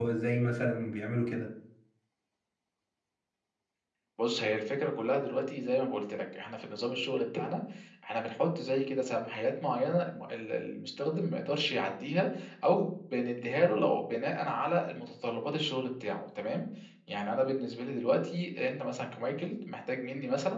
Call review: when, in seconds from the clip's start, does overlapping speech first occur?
none

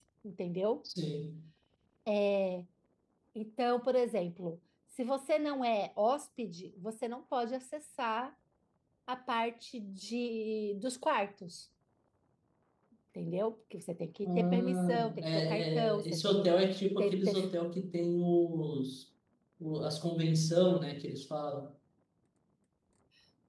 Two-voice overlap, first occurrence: 14.2 s

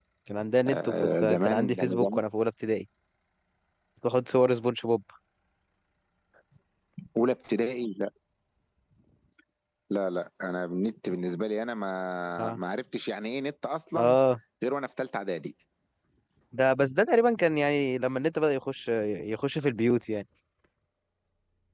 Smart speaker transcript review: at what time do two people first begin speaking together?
0.7 s

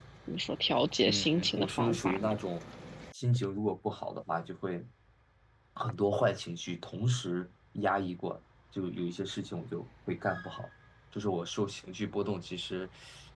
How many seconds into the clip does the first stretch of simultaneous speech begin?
1.0 s

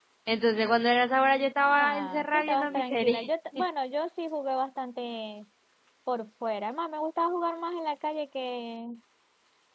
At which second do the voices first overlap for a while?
1.6 s

